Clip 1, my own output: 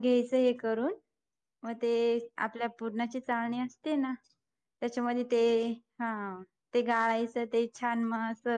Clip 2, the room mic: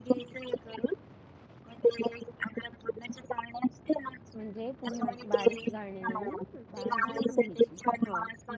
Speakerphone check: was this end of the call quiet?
No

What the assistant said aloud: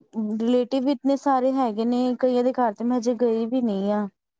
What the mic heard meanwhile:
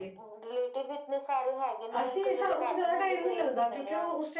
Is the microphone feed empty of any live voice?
No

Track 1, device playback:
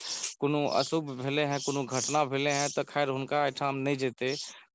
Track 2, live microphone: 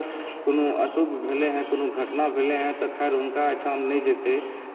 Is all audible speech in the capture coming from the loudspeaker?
Yes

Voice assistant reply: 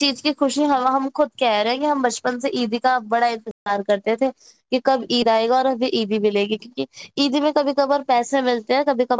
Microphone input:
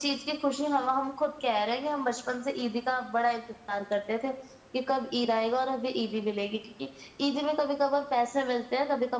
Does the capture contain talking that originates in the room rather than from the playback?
No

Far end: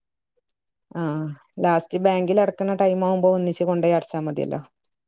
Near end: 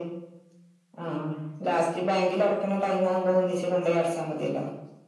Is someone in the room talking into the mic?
No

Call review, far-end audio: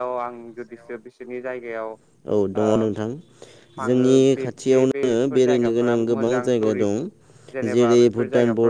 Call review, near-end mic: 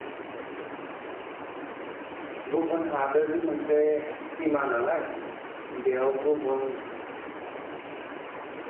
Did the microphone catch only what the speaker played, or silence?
No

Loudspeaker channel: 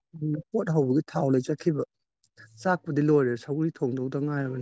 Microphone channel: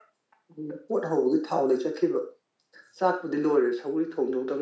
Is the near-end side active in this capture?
No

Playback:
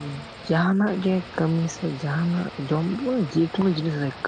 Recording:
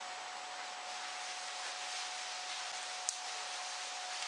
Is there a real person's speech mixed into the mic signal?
No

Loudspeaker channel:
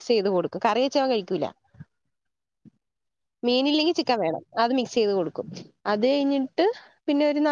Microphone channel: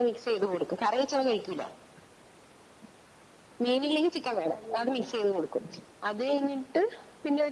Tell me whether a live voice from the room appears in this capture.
Yes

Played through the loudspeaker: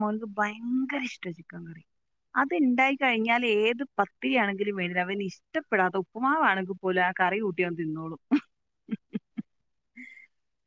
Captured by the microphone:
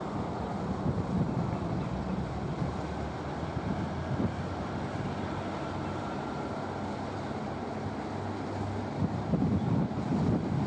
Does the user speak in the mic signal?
No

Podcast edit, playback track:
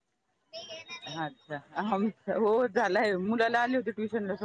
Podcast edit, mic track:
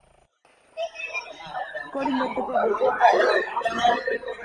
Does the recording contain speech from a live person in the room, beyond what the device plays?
Yes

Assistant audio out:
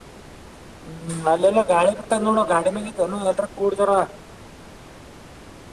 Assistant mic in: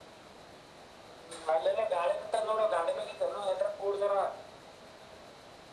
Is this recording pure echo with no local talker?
Yes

